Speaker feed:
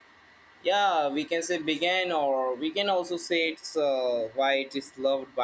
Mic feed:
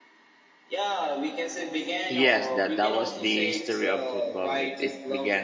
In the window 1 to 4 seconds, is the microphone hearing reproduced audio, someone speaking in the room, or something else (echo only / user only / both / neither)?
both